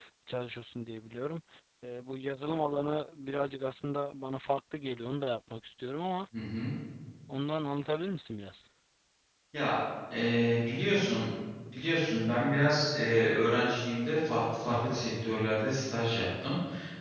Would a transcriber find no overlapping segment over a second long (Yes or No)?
Yes